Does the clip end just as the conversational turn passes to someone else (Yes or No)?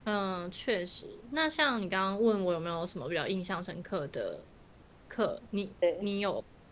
No